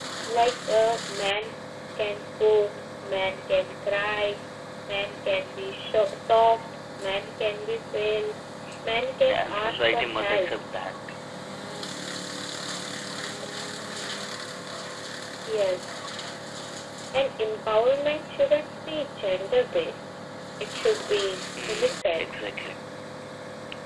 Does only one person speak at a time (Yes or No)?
No